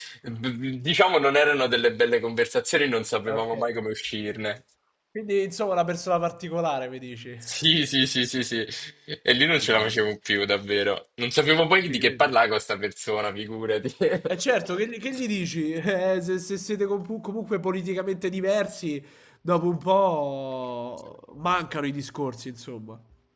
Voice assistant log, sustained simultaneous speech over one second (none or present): none